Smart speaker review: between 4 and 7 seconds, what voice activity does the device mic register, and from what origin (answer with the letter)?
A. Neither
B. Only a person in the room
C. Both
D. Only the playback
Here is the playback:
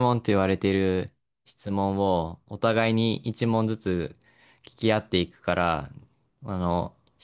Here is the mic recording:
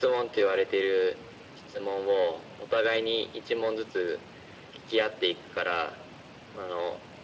D